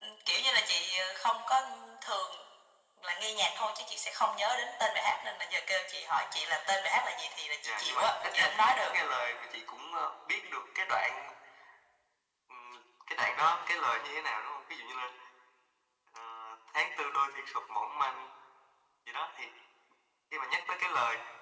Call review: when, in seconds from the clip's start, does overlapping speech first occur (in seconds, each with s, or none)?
7.6 s